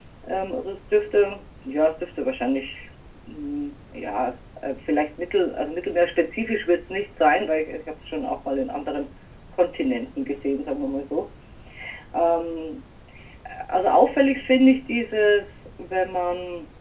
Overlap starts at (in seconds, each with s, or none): none